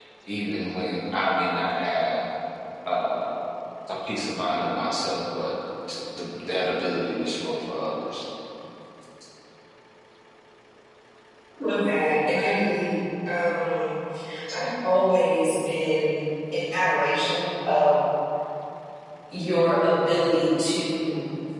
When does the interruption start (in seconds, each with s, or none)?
none